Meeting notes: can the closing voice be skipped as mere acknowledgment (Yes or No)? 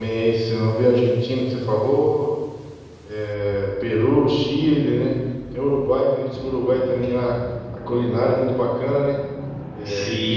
No